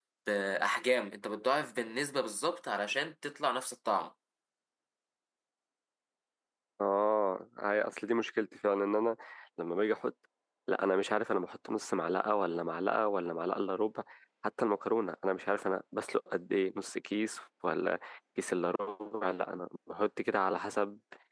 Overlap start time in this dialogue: none

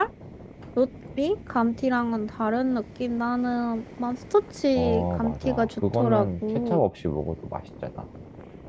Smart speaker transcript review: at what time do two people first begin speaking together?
4.8 s

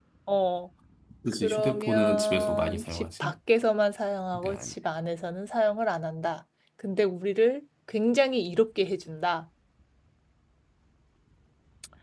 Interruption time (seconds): 1.4 s

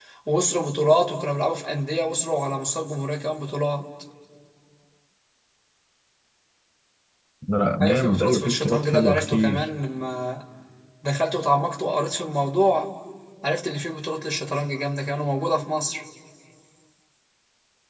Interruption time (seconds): 7.8 s

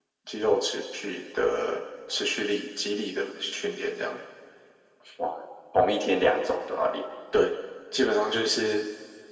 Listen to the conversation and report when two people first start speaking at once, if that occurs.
none

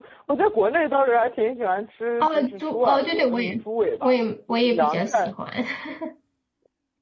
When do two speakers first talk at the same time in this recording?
2.2 s

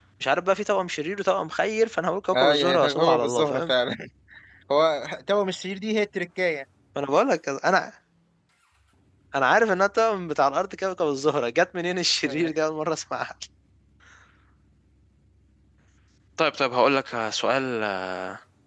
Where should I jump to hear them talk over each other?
2.3 s

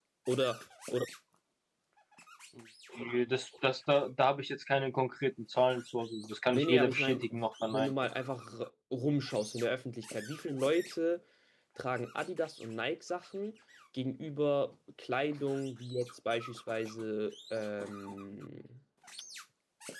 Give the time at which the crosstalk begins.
6.5 s

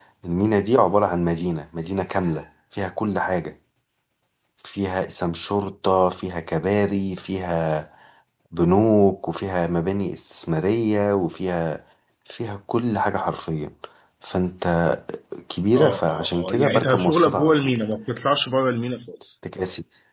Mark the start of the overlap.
15.7 s

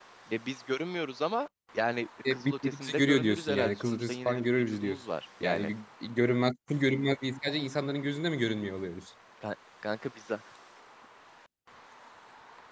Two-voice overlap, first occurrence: 2.2 s

